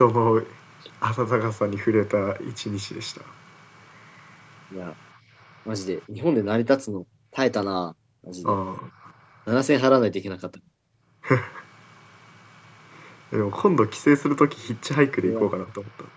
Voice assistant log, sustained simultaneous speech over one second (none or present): none